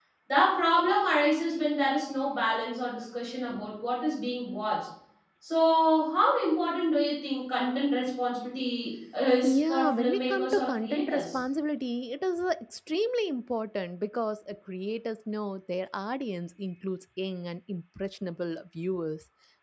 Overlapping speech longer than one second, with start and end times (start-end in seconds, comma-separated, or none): 9.4-11.4